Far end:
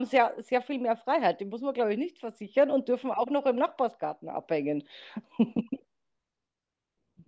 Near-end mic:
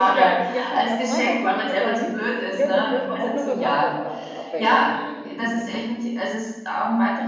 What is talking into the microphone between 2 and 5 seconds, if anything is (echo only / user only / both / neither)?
both